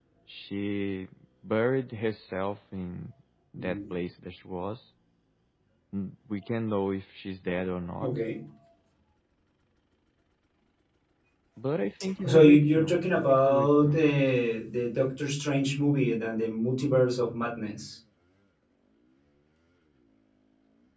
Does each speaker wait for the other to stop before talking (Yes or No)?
No